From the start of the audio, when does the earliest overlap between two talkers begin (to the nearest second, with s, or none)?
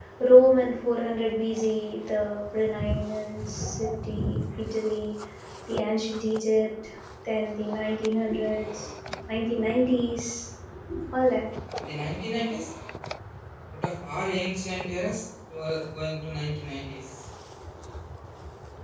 none